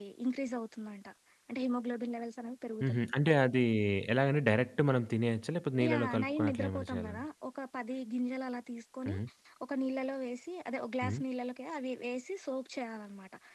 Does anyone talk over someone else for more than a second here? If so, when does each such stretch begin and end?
5.9-7.2

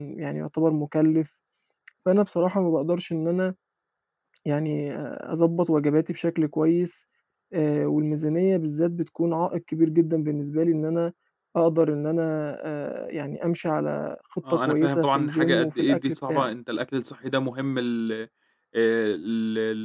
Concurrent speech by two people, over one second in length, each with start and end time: 14.5-16.5

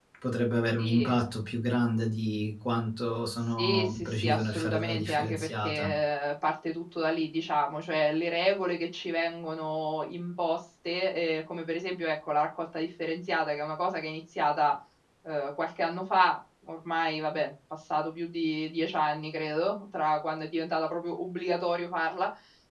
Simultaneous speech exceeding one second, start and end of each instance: 3.6-5.9

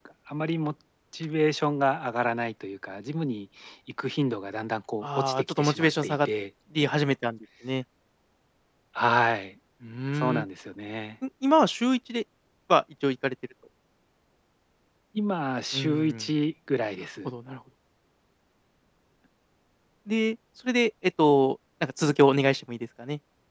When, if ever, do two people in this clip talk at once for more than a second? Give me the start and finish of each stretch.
5.0-6.3

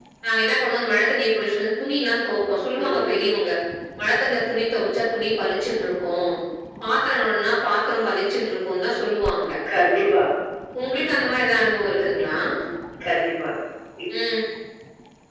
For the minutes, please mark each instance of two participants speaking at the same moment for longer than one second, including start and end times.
none

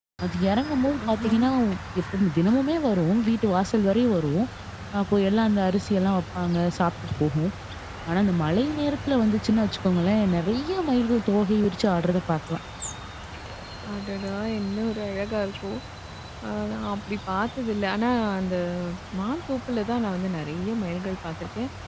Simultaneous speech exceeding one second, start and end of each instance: none

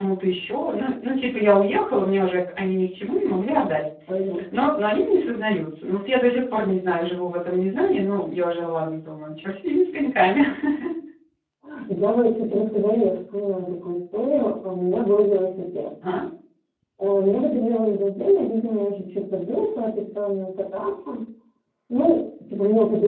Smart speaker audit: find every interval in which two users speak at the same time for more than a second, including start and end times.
none

